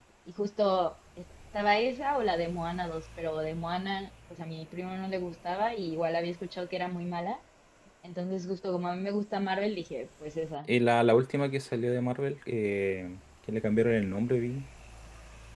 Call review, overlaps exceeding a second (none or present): none